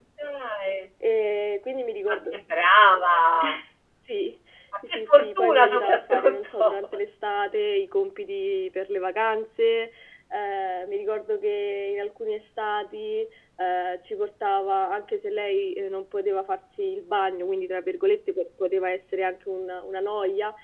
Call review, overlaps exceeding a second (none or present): present